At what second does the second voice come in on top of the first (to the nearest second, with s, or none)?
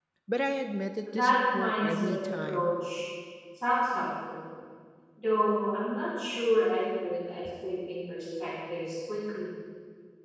1 s